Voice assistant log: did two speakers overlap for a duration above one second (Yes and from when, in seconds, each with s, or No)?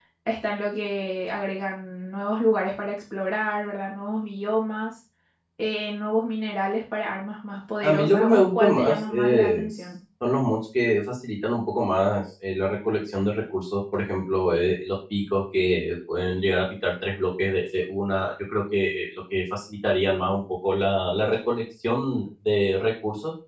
Yes, from 7.8 s